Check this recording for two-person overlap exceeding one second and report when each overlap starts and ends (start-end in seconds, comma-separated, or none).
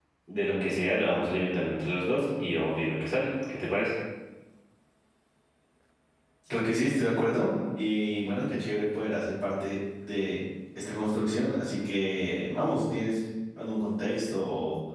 none